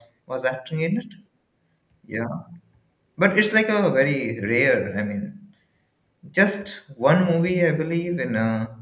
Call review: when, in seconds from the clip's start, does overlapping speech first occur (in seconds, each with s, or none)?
none